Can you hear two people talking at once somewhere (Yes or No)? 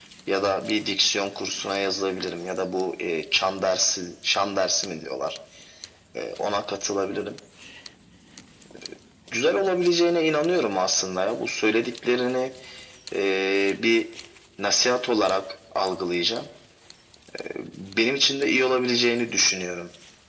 No